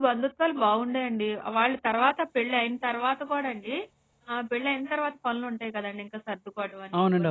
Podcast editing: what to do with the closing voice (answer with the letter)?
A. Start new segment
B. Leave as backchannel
B